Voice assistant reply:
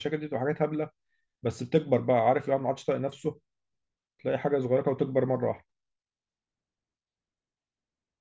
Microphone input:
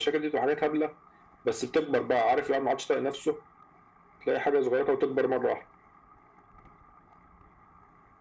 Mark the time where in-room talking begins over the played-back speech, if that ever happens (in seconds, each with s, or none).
none